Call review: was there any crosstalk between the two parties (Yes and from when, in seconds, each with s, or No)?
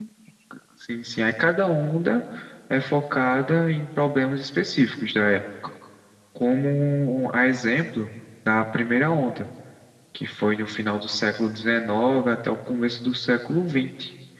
No